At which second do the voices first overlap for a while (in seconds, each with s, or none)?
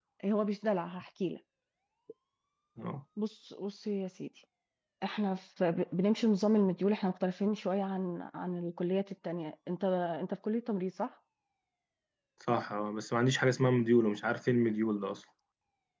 none